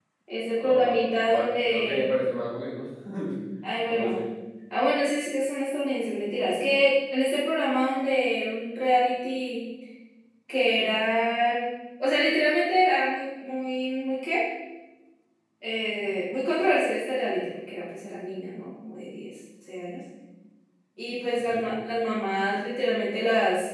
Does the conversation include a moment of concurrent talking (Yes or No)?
Yes